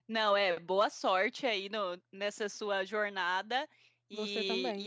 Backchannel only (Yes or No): Yes